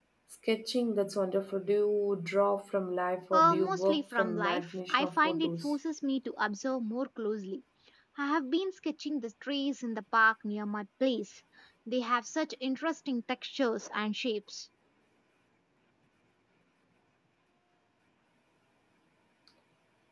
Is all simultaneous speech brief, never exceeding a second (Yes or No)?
No